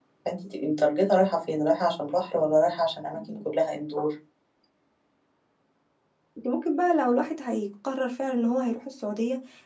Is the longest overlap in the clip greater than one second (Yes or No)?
No